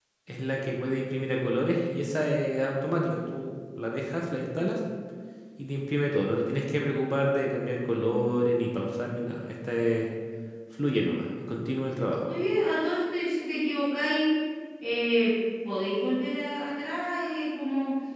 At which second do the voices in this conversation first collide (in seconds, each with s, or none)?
none